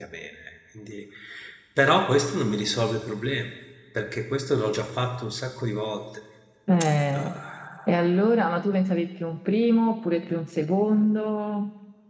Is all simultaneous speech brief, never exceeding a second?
Yes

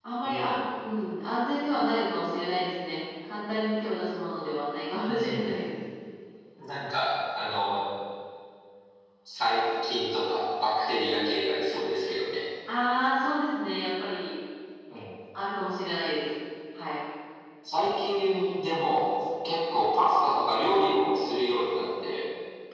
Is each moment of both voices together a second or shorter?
Yes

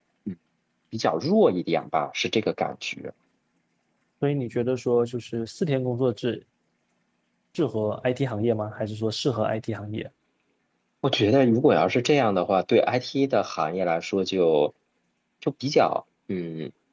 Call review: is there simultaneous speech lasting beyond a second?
No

